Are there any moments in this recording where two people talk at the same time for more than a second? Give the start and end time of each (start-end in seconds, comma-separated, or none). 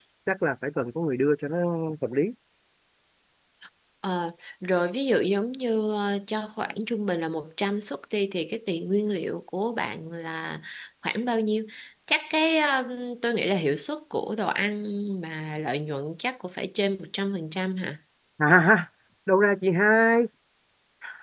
none